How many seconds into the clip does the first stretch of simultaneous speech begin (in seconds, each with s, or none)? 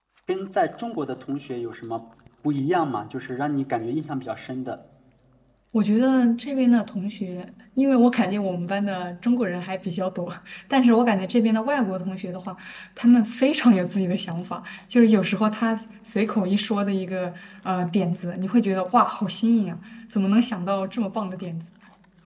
none